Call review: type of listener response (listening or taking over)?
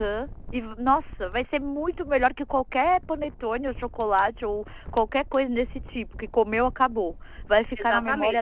taking over